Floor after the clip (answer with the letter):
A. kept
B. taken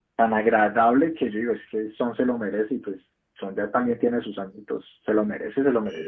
B